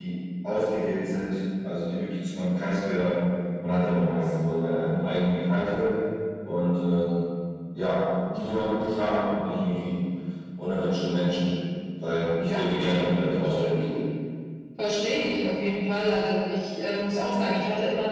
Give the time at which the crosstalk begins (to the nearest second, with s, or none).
12 s